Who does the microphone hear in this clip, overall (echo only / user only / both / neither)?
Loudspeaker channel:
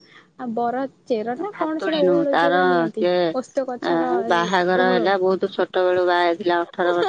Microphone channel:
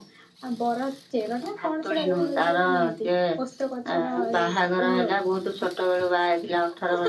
echo only